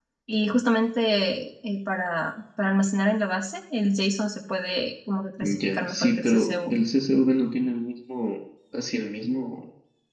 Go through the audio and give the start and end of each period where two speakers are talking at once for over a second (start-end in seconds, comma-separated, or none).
5.4-6.8